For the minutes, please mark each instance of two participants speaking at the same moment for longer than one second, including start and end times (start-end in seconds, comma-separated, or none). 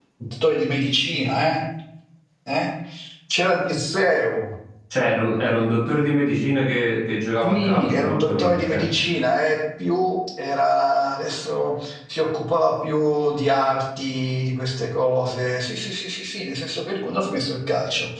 7.4-8.8